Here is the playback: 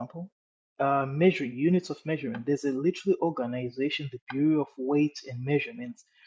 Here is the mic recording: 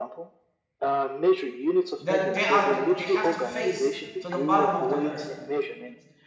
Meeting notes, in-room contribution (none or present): present